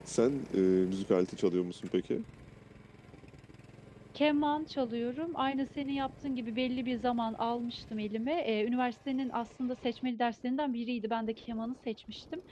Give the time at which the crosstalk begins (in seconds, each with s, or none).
none